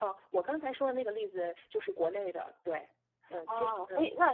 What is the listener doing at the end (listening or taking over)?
taking over